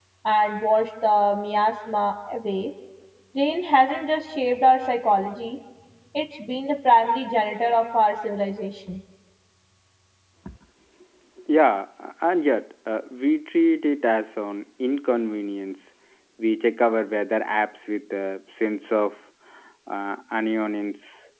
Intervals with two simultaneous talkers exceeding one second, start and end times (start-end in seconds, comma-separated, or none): none